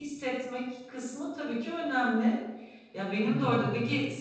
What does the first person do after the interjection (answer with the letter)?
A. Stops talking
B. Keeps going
B